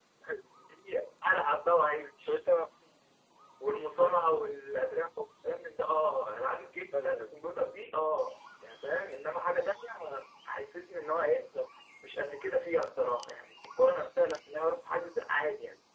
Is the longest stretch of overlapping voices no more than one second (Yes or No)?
Yes